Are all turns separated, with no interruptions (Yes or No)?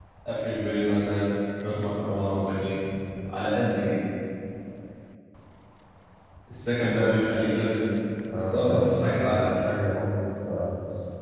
No